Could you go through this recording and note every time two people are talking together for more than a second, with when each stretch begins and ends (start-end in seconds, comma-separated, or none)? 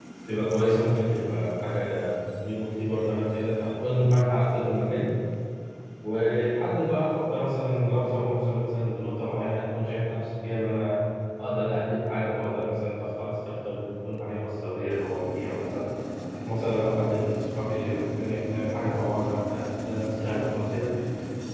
none